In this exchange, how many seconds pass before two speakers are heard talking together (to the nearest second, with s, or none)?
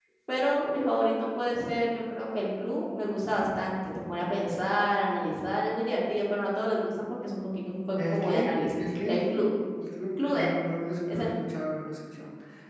8 s